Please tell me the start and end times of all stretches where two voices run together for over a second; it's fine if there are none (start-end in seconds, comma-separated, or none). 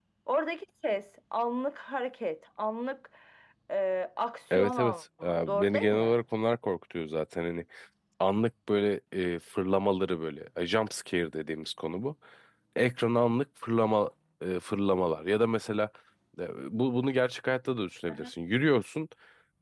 4.5-6.2